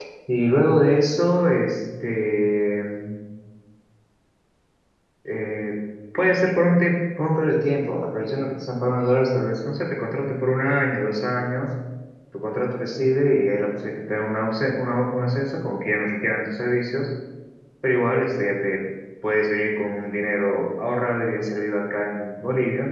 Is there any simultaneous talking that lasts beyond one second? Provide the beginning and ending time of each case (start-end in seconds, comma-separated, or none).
none